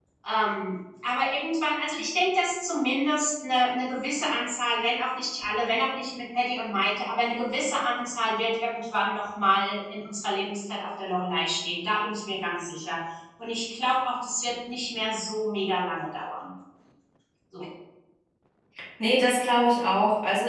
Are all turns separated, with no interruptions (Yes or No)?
Yes